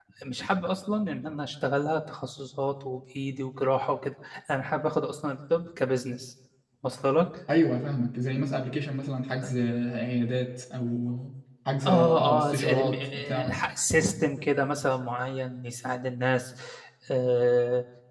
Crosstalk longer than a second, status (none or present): present